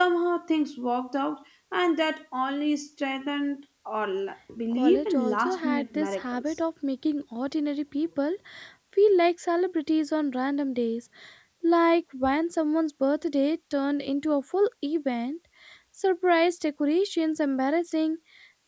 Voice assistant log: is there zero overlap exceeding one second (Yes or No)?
No